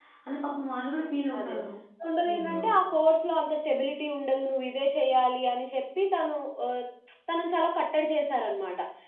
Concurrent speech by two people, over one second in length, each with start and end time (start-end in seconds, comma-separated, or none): none